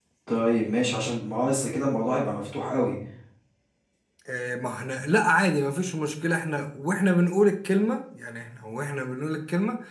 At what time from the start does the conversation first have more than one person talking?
none

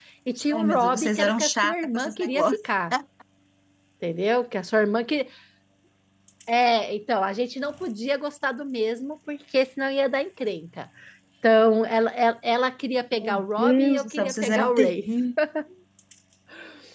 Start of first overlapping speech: 0.5 s

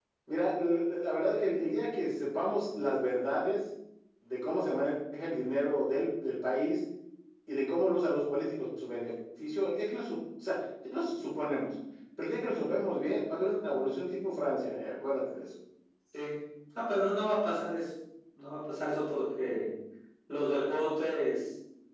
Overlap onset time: none

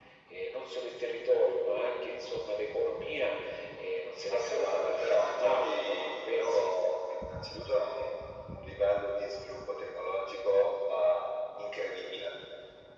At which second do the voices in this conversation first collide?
4.3 s

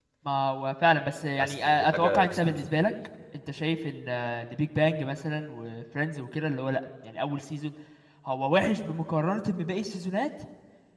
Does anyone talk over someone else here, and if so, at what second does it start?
1.4 s

